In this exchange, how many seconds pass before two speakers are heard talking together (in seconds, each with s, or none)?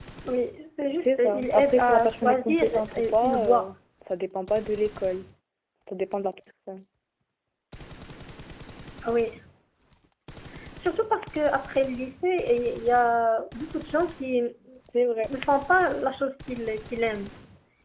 1.0 s